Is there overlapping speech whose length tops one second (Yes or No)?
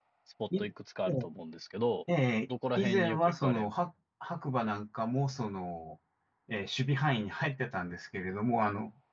Yes